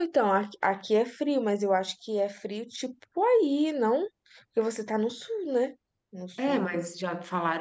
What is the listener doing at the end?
taking over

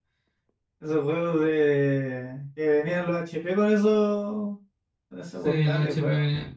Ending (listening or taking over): taking over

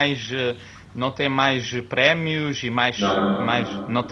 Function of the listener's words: listening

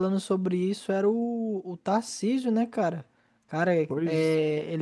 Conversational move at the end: listening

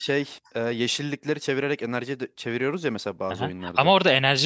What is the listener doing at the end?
taking over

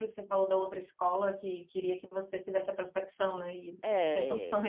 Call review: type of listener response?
taking over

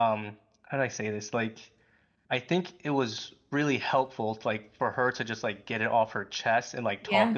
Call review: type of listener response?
listening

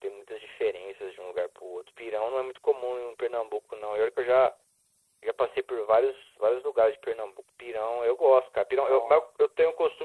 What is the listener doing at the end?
listening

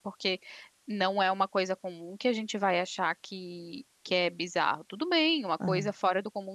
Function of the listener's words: listening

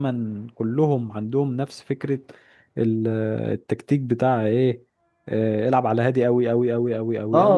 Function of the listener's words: taking over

